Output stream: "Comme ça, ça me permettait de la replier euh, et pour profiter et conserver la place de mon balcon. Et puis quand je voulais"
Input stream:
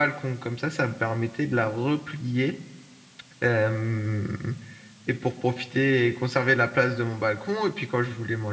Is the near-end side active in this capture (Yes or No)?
No